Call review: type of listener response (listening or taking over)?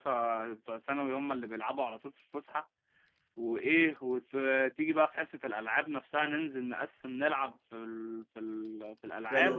taking over